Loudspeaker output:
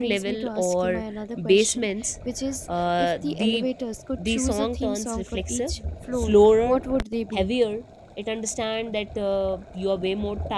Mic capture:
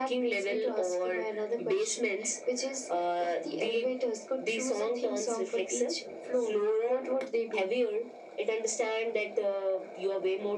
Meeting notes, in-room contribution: none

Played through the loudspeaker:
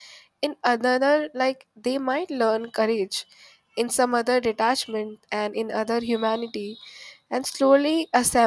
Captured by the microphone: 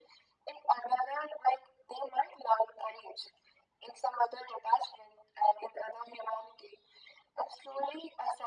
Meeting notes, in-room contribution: none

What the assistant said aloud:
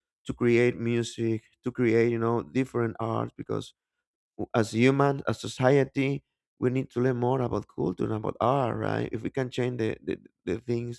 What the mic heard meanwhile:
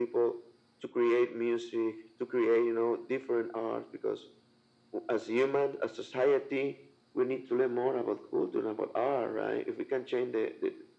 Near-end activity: none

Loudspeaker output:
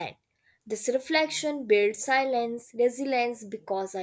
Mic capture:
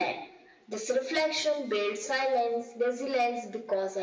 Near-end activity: none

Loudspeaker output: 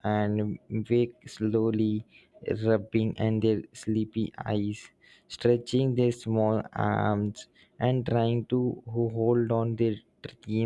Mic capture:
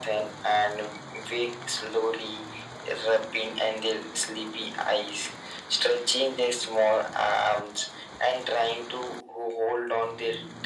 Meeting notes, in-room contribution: none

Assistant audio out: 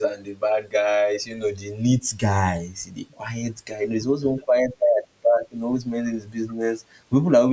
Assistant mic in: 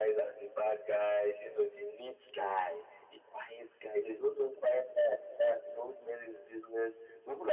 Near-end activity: none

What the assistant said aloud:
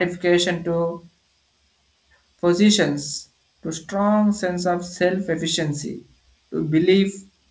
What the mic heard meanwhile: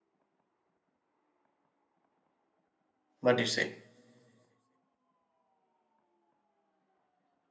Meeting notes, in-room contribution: present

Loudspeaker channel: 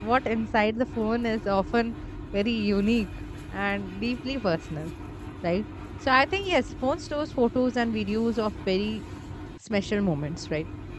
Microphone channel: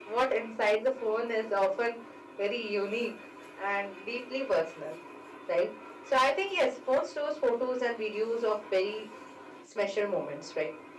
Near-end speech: none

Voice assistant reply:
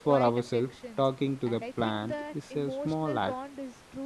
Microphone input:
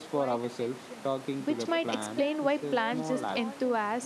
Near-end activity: present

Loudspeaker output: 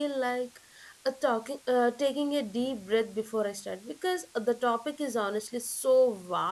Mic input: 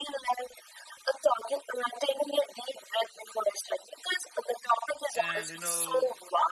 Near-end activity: present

